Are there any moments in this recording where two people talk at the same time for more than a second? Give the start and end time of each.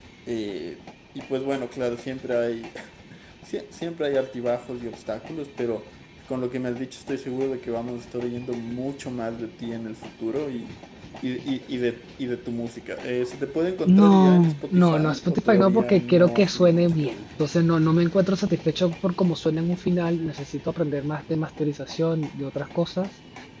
13.8-17.1

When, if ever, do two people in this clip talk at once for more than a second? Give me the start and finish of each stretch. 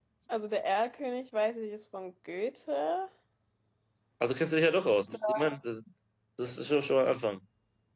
none

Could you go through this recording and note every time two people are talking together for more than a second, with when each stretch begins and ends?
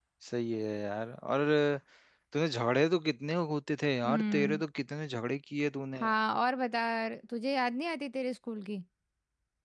none

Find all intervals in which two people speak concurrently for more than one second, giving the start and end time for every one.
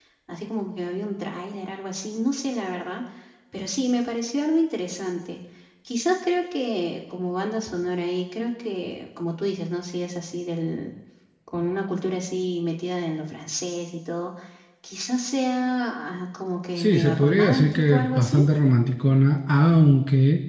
16.8-18.4

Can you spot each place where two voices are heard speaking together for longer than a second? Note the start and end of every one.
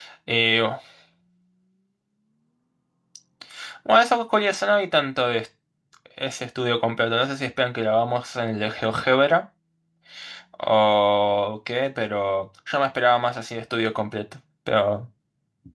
none

